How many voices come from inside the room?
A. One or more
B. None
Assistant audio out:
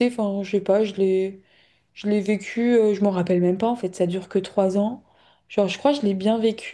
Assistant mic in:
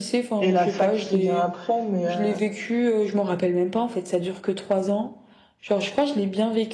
A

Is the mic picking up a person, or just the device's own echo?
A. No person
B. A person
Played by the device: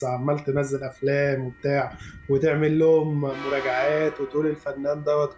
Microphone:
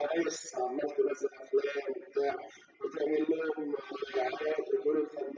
A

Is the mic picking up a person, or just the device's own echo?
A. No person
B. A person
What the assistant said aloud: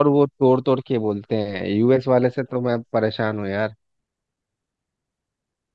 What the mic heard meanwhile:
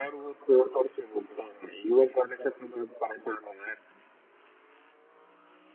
A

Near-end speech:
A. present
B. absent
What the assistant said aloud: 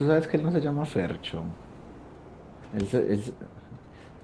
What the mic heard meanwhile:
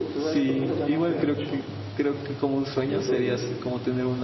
A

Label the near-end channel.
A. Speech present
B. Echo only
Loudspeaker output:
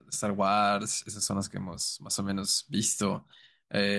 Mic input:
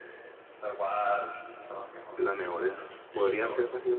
A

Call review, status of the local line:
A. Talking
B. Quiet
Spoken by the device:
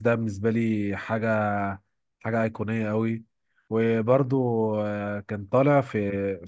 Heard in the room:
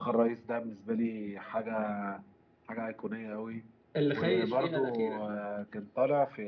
A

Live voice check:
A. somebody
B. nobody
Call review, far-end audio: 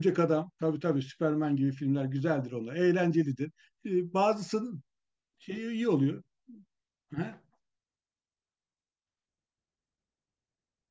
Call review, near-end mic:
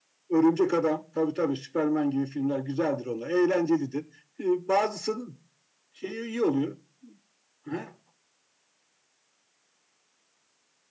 B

